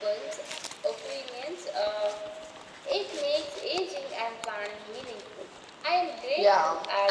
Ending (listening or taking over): taking over